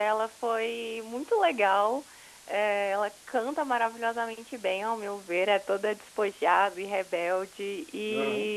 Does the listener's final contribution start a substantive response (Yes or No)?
No